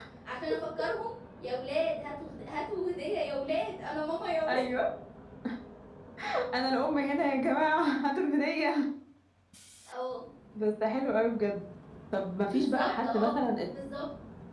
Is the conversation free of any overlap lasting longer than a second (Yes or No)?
No